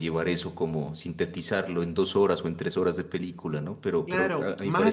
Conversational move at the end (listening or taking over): taking over